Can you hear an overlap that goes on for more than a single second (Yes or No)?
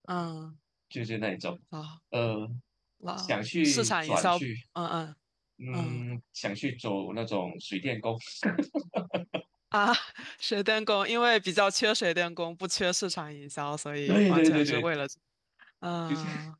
Yes